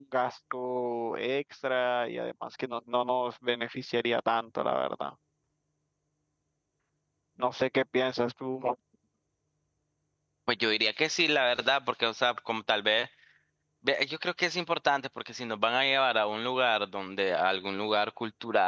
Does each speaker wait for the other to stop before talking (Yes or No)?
Yes